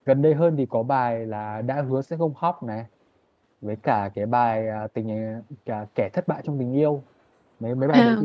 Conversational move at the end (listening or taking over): listening